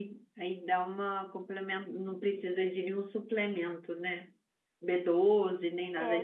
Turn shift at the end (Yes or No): Yes